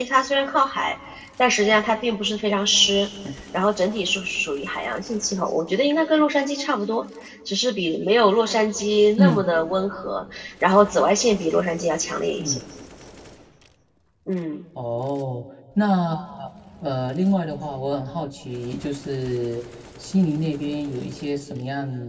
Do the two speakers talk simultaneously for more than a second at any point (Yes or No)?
No